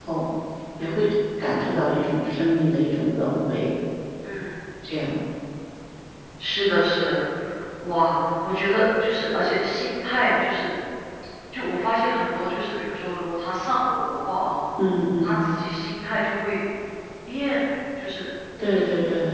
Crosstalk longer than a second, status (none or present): none